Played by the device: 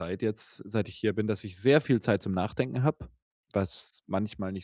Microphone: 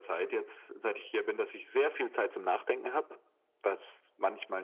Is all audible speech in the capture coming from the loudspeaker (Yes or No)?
Yes